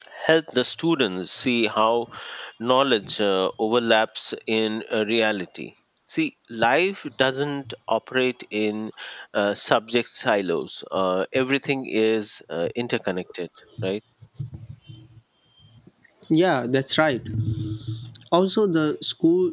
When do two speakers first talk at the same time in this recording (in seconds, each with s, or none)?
none